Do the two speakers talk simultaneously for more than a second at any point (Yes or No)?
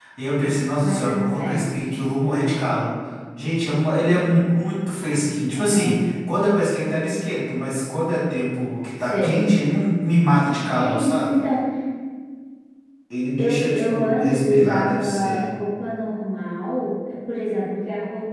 Yes